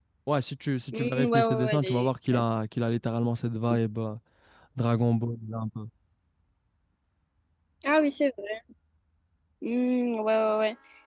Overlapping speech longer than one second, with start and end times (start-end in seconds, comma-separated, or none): 0.9-2.4